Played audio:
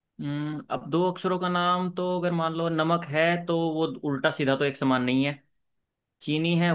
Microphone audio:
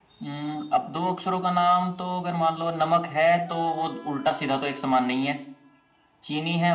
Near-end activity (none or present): none